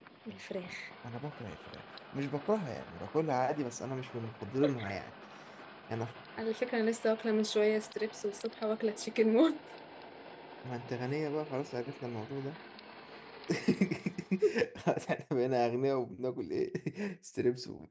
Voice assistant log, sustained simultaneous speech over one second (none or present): none